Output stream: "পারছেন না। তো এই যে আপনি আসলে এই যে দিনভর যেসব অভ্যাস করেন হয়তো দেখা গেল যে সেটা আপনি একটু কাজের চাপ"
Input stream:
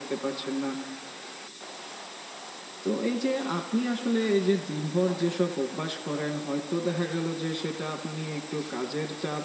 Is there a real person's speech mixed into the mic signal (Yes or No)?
No